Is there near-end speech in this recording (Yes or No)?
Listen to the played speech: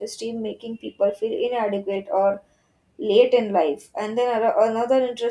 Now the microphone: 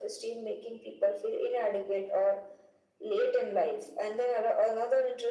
No